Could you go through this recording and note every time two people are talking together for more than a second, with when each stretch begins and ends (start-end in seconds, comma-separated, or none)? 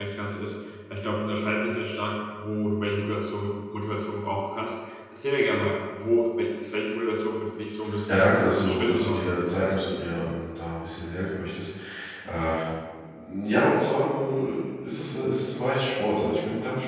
8.1-9.3